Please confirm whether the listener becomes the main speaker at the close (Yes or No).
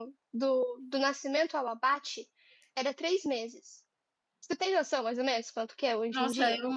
Yes